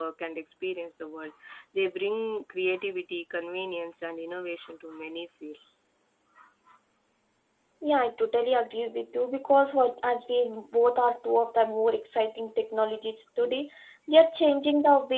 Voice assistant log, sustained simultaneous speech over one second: none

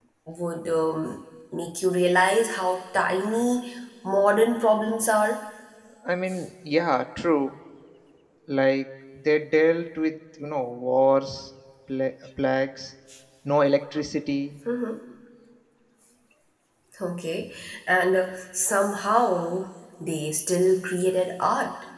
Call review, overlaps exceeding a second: none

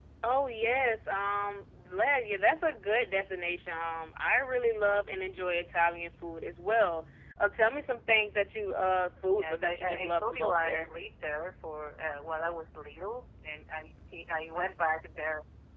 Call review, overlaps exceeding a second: present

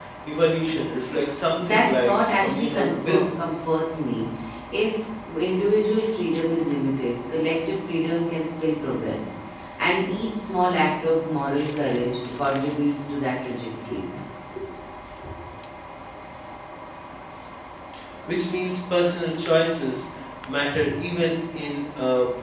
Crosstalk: present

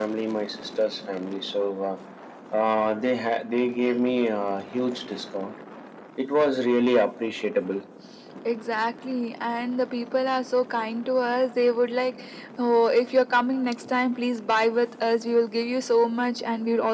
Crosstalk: none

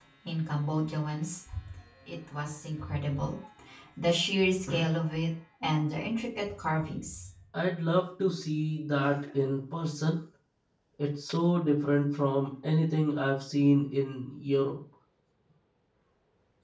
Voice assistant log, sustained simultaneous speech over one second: none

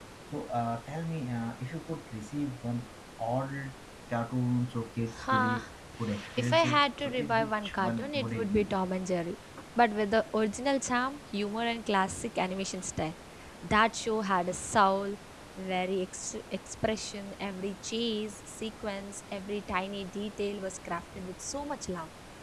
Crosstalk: present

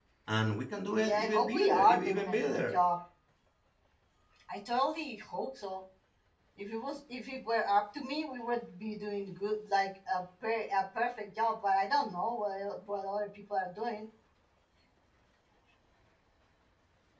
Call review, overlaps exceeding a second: present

